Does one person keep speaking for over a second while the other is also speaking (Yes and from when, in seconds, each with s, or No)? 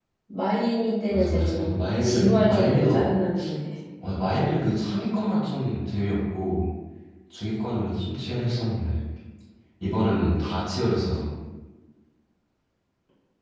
Yes, from 1.1 s